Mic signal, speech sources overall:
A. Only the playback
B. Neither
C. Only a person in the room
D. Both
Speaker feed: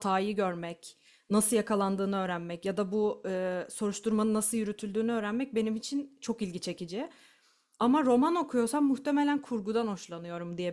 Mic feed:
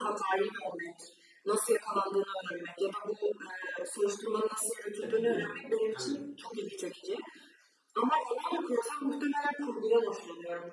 D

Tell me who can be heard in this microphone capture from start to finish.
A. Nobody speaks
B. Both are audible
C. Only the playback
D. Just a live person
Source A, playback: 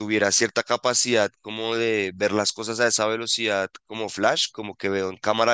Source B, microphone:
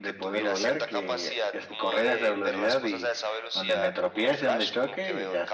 B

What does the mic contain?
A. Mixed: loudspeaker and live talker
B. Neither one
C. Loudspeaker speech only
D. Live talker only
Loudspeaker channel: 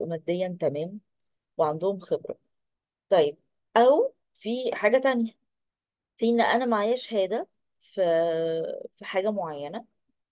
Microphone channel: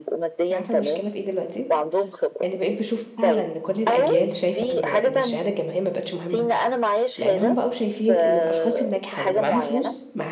A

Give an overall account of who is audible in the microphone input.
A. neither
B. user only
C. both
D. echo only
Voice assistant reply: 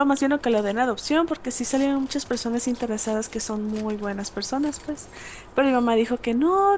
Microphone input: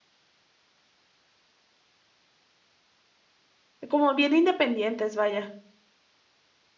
B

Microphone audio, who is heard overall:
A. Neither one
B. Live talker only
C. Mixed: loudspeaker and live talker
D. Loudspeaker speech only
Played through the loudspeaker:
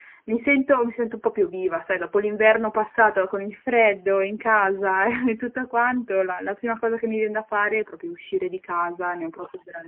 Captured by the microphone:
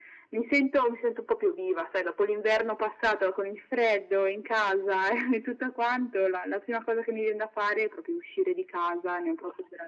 D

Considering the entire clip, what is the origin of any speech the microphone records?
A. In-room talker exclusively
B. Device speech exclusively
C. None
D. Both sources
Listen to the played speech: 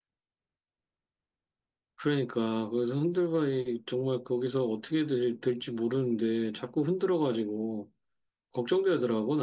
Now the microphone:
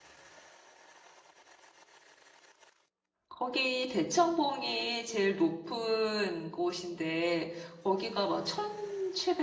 A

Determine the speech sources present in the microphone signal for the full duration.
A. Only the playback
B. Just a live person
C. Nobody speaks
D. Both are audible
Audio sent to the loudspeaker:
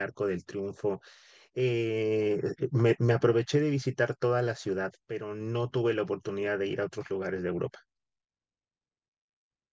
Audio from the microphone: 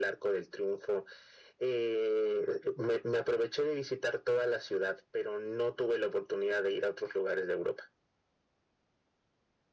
A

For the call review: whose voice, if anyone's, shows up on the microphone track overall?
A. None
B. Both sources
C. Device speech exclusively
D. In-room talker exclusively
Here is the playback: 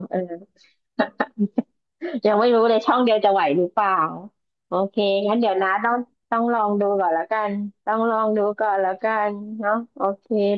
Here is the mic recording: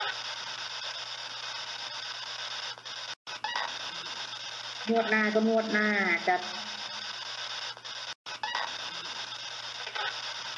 D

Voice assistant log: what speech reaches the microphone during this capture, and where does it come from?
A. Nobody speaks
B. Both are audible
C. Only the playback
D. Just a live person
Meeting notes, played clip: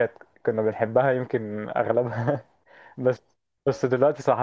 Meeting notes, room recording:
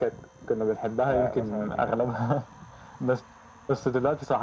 B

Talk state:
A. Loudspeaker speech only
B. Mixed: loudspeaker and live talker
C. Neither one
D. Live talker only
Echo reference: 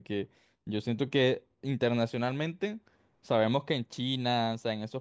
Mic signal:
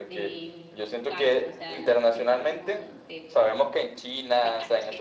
B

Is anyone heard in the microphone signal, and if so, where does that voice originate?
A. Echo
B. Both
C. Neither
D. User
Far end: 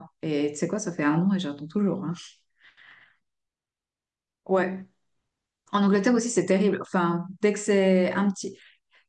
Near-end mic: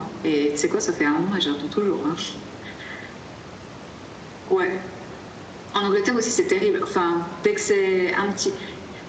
A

